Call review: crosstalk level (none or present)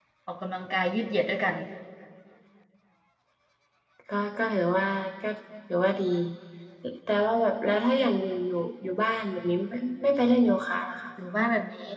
none